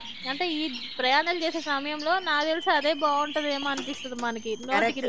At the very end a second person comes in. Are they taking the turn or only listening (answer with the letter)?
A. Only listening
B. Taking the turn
B